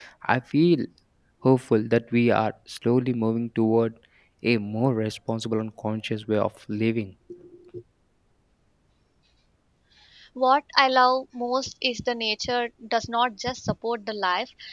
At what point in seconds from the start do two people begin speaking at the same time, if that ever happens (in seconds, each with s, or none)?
none